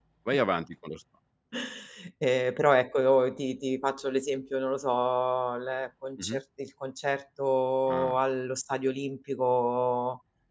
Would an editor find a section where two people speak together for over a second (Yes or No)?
No